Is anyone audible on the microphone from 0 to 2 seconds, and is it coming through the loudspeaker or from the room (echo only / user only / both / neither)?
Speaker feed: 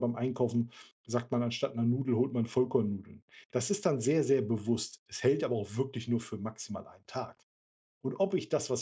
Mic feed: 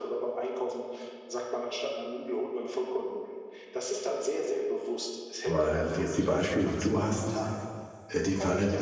echo only